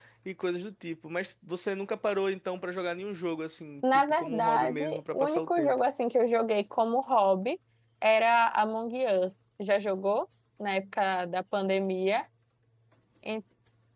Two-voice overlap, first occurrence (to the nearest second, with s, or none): 4 s